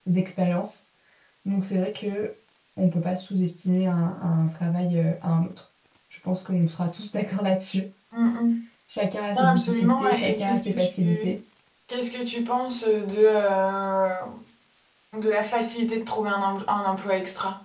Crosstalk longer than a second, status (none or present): present